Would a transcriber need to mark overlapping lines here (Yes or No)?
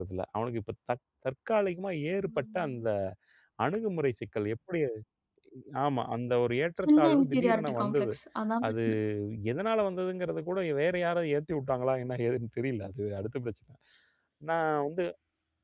Yes